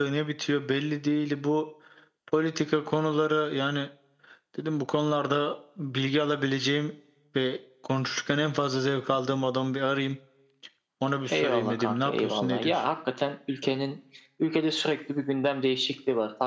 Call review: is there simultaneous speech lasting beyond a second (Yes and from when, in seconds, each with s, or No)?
Yes, from 11.3 s